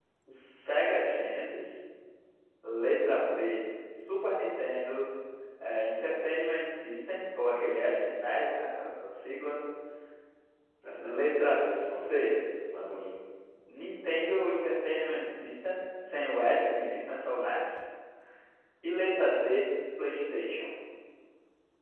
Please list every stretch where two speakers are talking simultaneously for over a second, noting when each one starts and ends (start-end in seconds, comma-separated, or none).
11.0-12.3